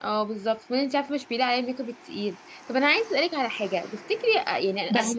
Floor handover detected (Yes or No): No